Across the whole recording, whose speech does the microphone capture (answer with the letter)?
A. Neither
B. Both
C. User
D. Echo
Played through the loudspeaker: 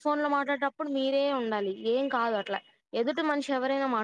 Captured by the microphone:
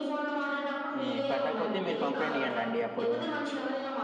B